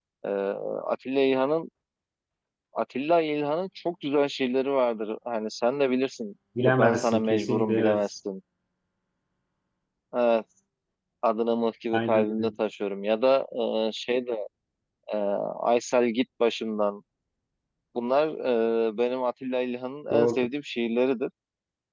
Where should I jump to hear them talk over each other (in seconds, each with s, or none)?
6.8 s